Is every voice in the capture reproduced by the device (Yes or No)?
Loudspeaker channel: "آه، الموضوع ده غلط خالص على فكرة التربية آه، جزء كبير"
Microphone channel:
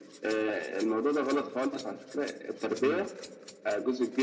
No